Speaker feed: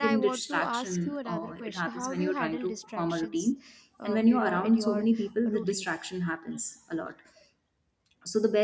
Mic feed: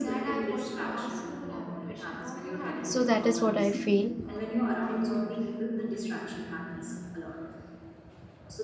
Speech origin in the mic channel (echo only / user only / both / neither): both